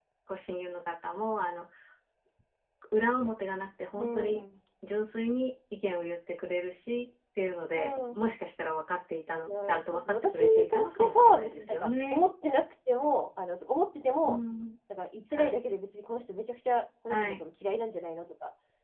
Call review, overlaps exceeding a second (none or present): present